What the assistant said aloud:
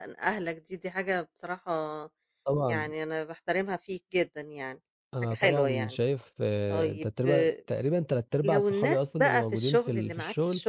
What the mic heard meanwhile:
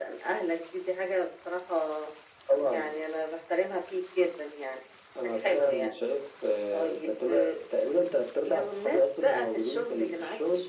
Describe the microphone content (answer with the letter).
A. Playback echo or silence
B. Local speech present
A